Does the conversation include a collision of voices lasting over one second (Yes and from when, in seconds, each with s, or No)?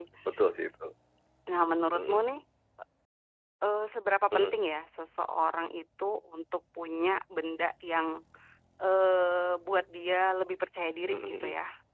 No